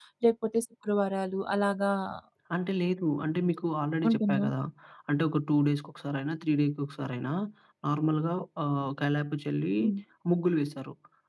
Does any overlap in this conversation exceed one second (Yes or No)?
No